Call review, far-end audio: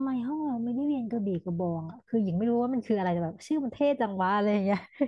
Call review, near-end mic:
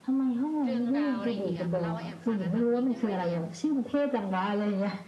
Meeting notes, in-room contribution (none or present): present